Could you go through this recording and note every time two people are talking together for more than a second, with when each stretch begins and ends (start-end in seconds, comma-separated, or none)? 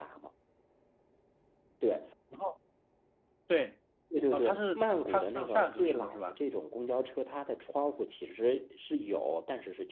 4.3-6.3